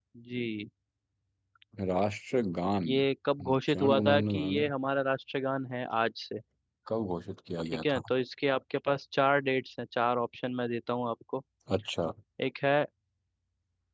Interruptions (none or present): present